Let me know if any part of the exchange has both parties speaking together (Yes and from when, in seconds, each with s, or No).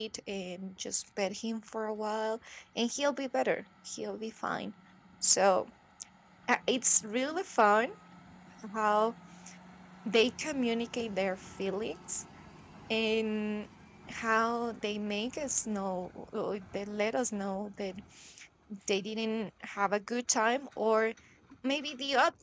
No